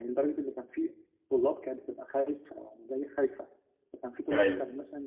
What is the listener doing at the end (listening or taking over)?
listening